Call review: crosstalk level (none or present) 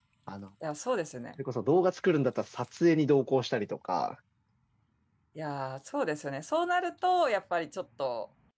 none